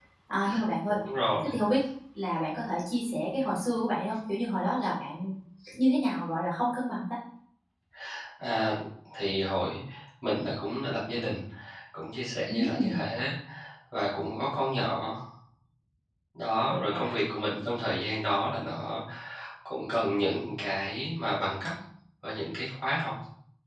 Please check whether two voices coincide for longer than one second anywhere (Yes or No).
No